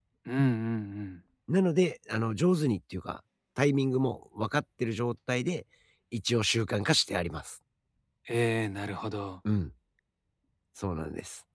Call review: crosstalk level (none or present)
none